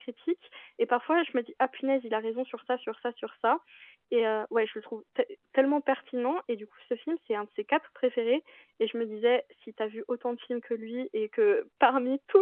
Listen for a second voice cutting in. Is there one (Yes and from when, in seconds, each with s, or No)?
No